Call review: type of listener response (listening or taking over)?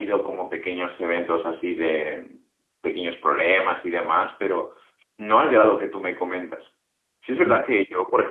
listening